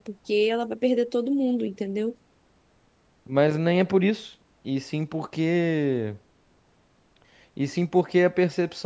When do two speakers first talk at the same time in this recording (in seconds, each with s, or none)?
none